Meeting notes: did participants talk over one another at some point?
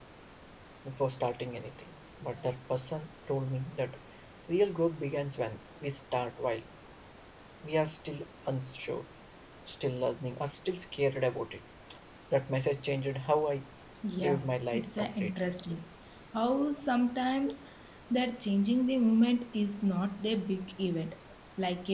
Yes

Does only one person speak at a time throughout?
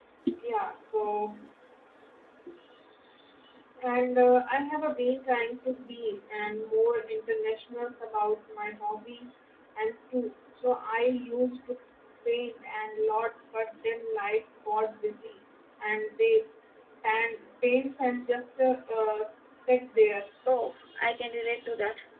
Yes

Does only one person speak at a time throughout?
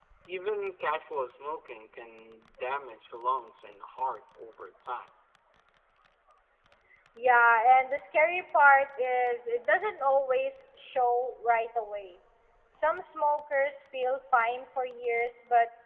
Yes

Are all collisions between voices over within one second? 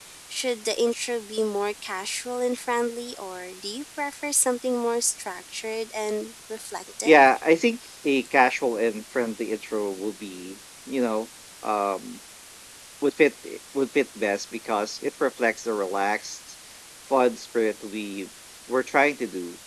Yes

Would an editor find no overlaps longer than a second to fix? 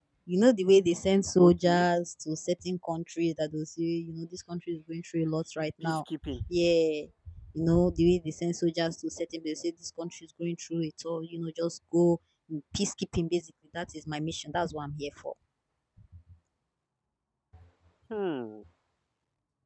Yes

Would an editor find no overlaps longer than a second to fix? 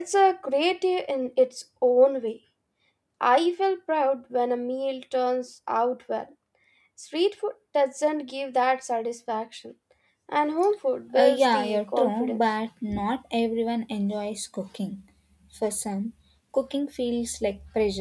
No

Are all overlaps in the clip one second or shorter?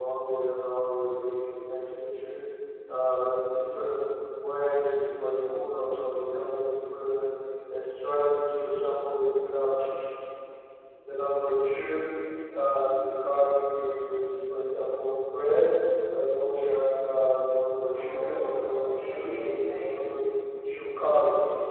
No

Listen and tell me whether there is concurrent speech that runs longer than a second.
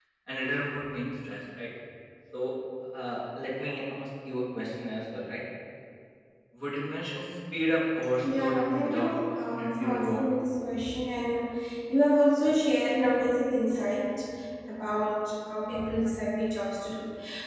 Yes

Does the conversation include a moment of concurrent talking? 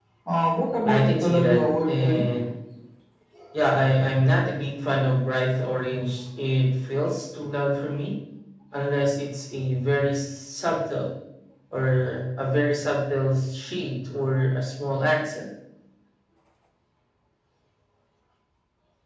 Yes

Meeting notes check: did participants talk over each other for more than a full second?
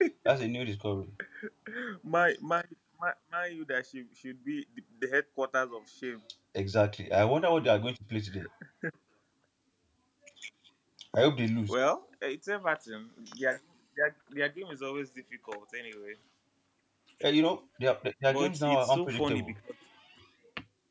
Yes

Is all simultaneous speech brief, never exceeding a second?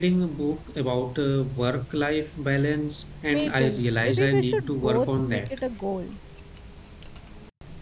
No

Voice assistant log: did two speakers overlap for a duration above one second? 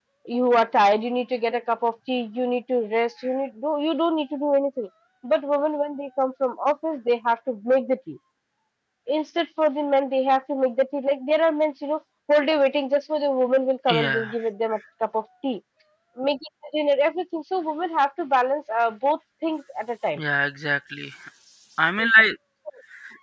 No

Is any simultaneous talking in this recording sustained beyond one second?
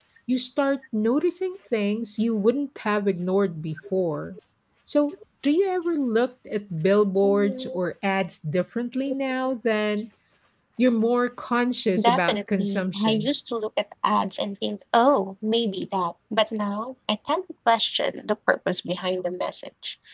Yes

